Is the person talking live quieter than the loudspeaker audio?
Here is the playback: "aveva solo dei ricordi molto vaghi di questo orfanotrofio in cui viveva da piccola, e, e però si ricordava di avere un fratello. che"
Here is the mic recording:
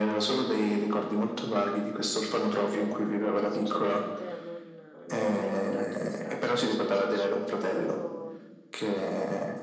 Yes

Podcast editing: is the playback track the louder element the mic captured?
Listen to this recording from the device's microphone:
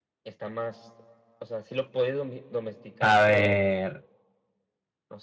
No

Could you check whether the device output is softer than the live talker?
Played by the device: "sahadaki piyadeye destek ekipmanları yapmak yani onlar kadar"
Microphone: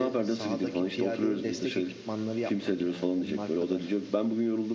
Yes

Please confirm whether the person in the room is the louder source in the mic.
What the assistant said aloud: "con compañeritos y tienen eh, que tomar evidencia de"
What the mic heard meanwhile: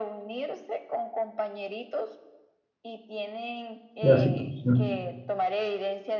Yes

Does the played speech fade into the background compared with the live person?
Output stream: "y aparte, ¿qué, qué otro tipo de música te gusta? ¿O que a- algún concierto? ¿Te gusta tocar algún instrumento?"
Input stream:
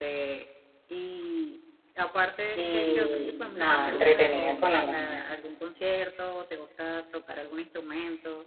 Yes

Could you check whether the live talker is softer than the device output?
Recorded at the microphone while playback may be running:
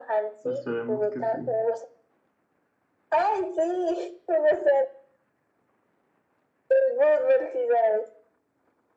Yes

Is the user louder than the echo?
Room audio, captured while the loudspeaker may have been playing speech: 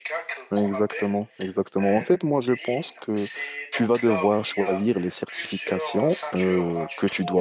Yes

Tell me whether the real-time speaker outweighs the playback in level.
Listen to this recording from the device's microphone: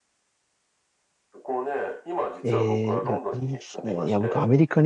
Yes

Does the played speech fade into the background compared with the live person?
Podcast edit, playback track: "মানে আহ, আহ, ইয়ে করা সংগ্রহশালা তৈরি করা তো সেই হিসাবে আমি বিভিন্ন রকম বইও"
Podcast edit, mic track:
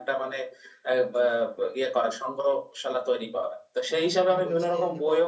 No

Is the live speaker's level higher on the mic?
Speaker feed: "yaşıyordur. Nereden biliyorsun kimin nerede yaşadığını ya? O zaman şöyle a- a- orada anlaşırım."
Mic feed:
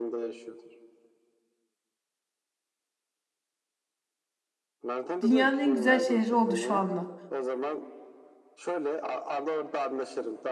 Yes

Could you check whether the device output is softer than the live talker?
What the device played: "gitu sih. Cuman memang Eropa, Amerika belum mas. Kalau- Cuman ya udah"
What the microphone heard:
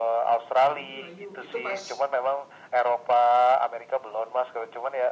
No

